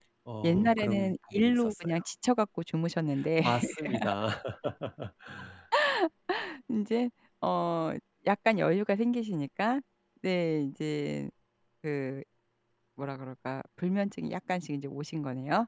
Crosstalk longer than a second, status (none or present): present